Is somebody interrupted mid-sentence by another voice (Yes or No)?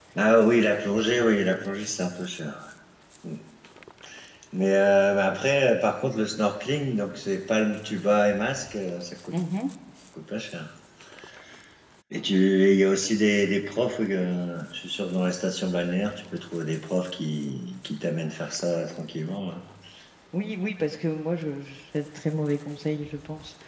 No